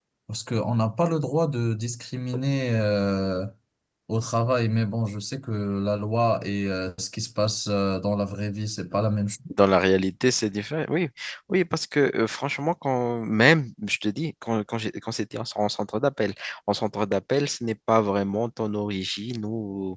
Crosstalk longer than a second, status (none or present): none